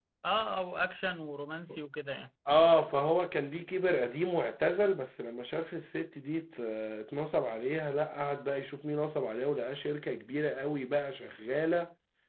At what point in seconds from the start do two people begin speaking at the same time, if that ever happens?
none

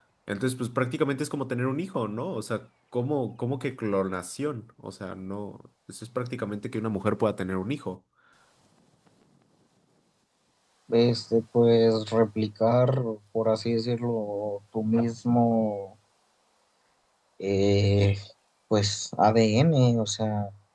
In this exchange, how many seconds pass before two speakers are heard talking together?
none

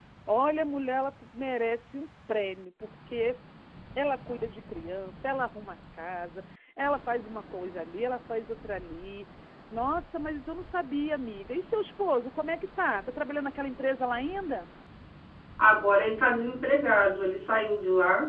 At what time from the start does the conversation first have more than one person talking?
none

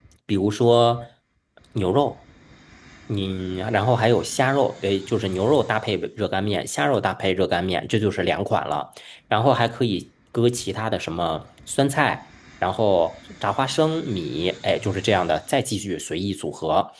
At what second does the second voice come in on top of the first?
none

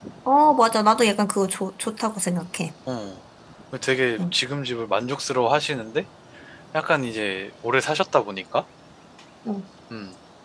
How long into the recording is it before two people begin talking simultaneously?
none

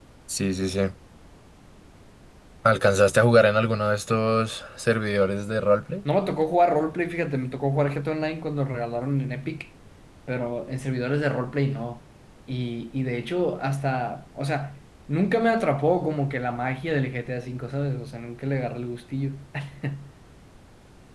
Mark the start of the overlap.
none

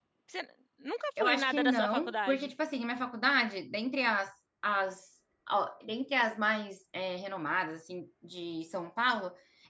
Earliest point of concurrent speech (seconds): 1 s

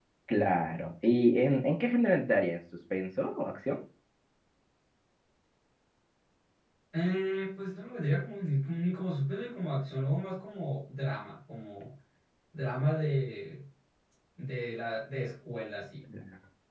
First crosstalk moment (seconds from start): none

